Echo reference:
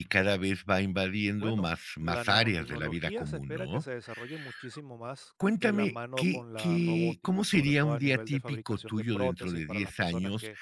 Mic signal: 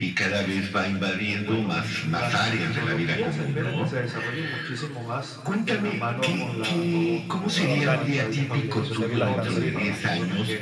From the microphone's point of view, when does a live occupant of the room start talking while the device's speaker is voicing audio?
7.5 s

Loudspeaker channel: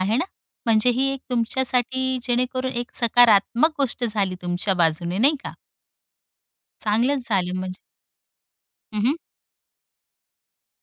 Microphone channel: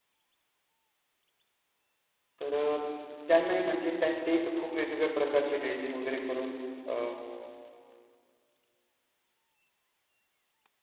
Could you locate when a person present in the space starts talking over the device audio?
2.4 s

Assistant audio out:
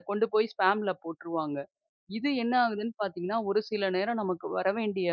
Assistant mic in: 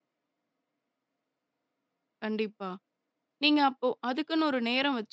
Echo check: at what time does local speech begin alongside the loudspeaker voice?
2.2 s

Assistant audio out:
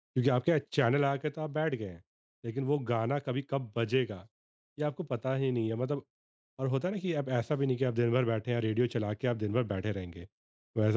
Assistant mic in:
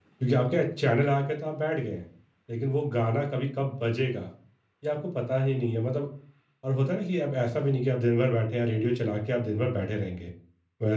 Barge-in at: none

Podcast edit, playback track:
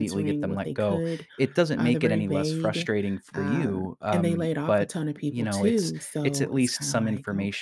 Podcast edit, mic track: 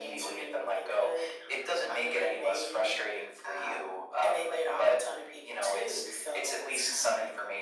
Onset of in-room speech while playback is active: none

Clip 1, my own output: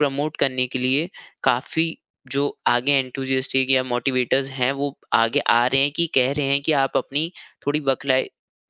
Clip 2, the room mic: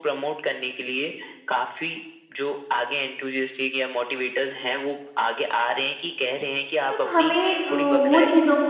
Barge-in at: 6.9 s

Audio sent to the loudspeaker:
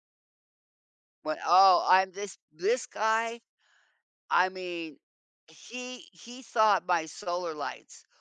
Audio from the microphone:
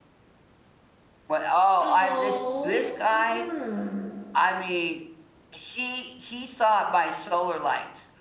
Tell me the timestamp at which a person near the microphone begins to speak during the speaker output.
1.8 s

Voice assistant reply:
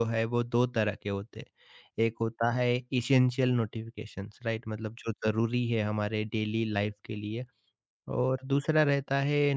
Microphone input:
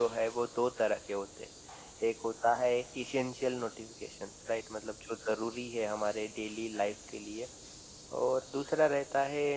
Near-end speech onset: none

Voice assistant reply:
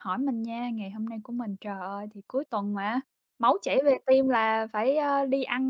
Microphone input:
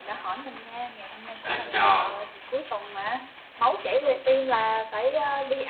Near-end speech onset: 1.4 s

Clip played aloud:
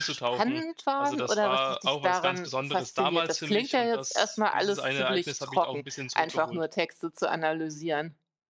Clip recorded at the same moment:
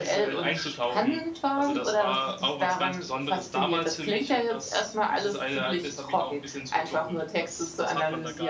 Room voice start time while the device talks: 7.4 s

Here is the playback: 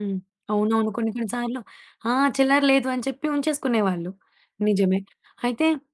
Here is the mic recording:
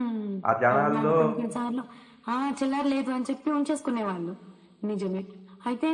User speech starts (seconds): 0.5 s

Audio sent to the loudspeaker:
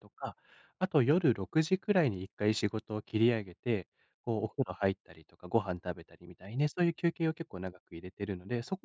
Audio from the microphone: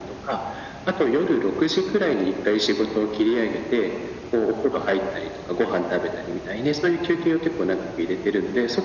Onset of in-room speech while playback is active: none

